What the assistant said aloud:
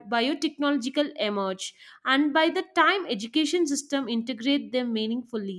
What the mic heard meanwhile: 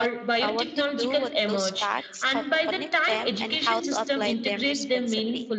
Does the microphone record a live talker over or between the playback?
Yes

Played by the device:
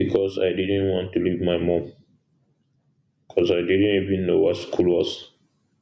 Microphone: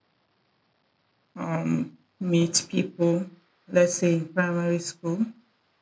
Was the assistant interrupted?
Yes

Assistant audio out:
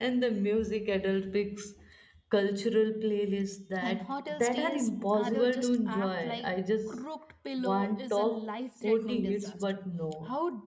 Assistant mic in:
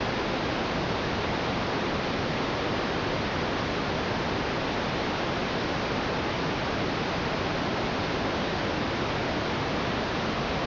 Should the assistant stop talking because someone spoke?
No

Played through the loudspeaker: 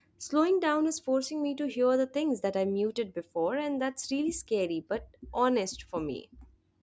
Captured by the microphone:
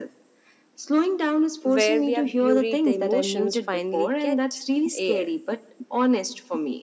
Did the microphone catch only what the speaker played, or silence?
No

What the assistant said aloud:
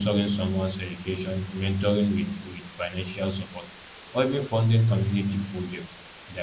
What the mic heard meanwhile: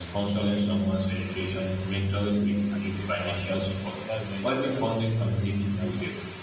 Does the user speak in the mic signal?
Yes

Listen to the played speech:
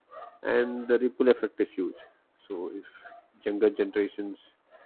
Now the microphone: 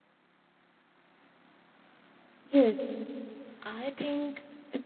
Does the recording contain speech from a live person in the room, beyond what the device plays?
Yes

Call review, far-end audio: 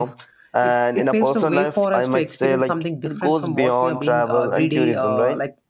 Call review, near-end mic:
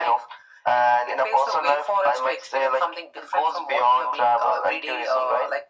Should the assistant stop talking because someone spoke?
No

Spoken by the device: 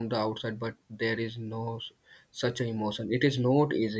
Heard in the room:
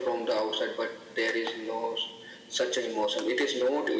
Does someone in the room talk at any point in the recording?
No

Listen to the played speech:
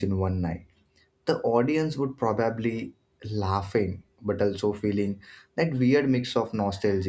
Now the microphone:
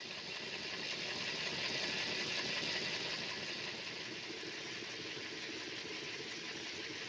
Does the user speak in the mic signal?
No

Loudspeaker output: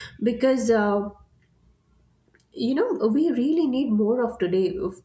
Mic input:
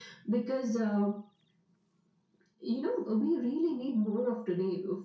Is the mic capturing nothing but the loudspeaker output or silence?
Yes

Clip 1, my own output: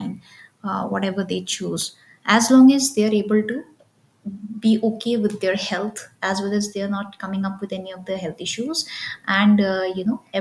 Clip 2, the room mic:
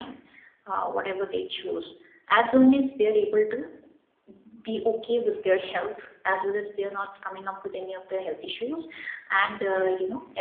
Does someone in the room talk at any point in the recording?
No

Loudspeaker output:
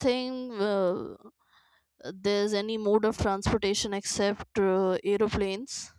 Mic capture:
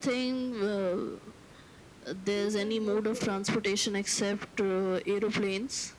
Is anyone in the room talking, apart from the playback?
Yes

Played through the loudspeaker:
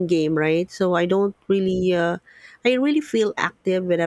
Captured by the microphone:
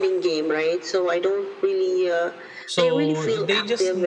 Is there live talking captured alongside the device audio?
Yes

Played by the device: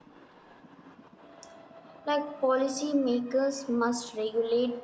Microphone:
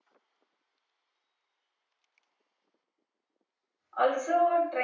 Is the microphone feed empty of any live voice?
No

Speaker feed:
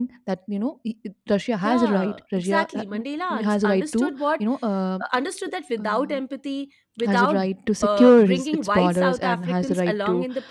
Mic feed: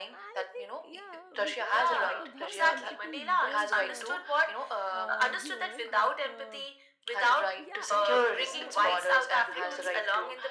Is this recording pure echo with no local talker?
No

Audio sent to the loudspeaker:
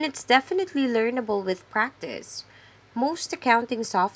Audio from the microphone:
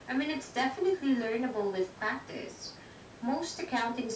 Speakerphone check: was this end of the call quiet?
Yes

